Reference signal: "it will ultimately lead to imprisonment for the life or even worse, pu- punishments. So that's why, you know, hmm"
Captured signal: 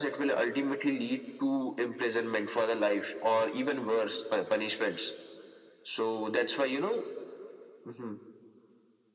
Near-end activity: none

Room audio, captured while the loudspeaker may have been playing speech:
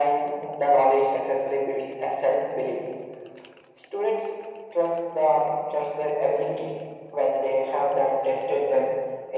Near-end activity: none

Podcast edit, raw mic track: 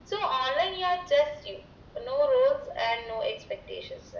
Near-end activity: none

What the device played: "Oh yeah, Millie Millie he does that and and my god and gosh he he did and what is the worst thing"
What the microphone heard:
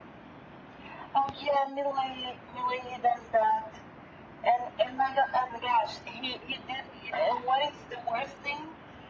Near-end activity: none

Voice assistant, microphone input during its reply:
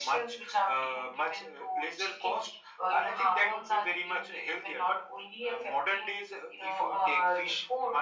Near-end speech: none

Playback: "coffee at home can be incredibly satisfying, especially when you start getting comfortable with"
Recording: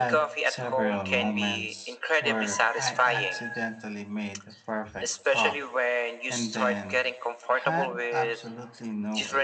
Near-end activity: present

